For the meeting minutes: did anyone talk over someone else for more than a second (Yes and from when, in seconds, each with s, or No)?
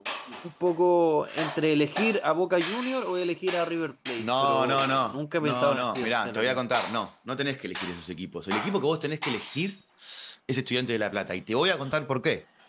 Yes, from 4.2 s